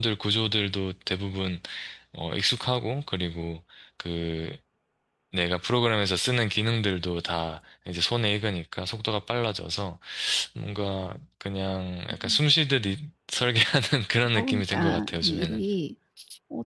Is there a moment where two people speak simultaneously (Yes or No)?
Yes